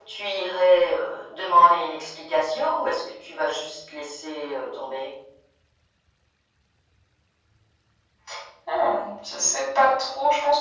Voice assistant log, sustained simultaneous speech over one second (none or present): none